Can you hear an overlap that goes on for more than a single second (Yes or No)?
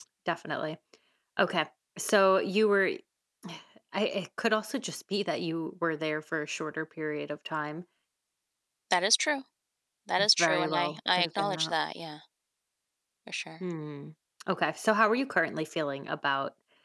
Yes